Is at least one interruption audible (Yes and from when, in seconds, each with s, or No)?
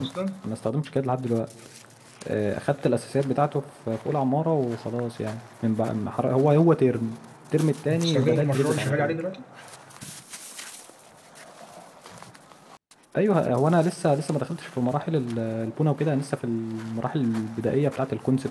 Yes, from 7.9 s